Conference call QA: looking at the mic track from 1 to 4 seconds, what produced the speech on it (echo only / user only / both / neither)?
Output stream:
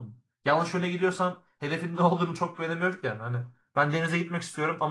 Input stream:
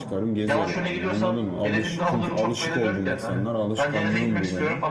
both